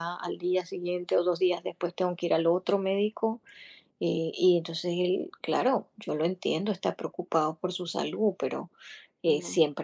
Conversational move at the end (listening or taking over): listening